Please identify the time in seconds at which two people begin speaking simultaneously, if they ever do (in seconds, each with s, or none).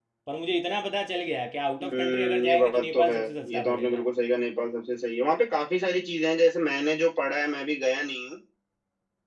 1.8 s